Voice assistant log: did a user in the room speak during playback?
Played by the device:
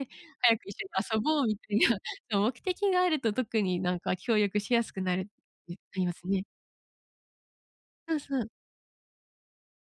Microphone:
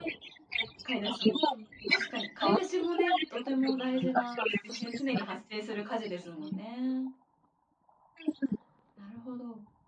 Yes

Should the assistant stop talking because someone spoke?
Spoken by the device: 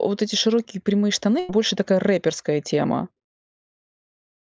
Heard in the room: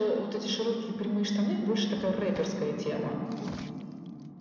No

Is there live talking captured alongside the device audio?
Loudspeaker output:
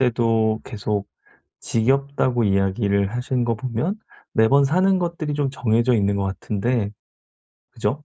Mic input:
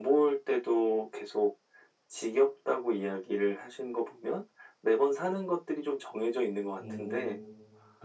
Yes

